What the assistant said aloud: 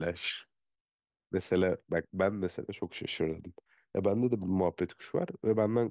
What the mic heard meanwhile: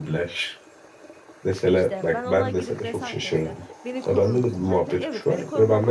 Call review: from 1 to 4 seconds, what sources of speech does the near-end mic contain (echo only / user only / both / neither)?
both